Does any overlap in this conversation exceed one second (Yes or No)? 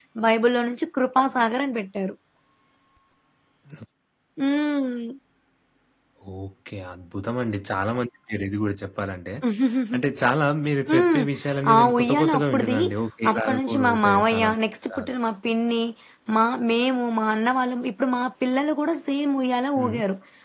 Yes